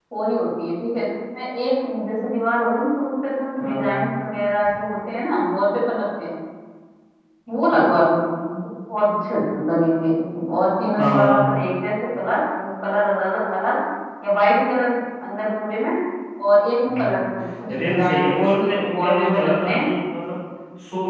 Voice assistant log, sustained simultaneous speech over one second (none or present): present